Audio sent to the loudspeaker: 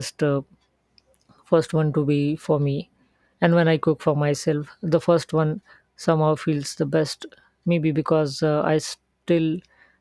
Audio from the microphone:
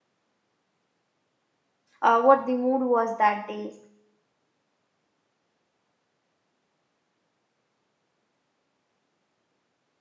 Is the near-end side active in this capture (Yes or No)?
Yes